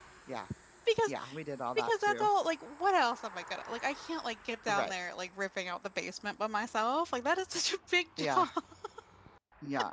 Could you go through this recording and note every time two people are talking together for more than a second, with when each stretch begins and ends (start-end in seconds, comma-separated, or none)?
none